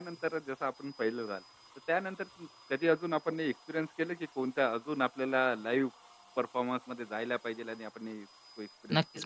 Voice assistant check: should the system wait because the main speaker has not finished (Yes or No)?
No